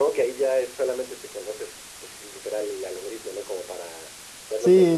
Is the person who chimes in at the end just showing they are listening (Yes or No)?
No